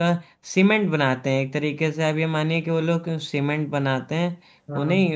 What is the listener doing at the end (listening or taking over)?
listening